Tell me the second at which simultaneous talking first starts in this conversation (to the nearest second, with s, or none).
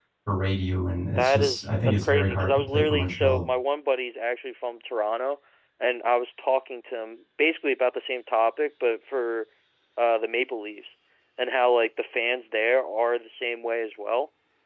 1 s